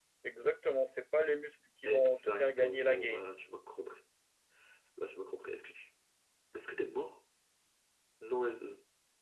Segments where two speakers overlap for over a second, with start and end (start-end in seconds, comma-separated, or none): 1.9-3.2